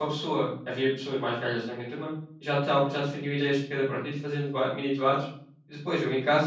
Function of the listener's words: listening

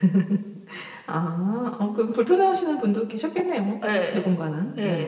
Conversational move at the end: taking over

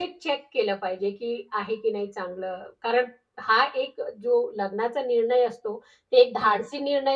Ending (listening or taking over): listening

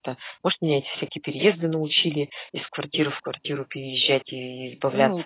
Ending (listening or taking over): taking over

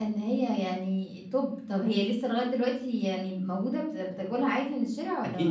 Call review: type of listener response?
taking over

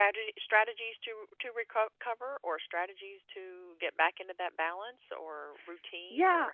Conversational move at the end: taking over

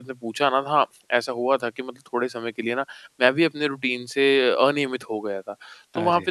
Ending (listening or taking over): listening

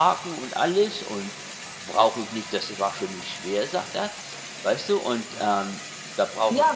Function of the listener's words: taking over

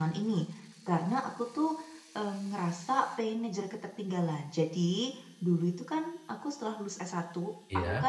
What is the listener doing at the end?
listening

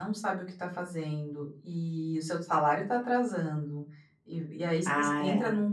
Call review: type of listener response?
listening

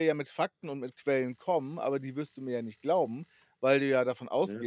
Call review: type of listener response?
listening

